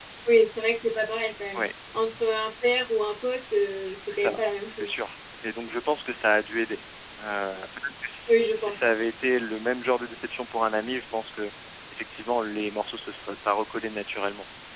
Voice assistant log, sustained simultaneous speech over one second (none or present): none